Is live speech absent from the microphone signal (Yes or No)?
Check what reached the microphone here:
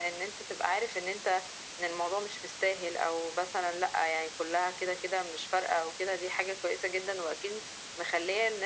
Yes